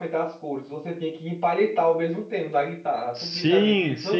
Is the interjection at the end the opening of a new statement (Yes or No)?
Yes